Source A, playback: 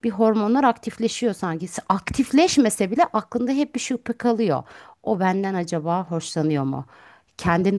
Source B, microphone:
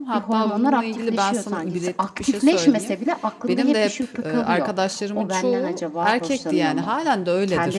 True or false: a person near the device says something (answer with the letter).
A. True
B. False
A